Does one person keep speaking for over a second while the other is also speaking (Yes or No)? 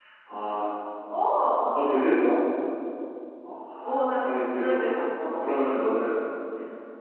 Yes